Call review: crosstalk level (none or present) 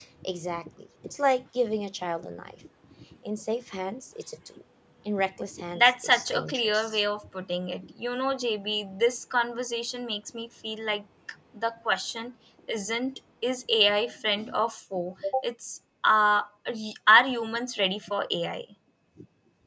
present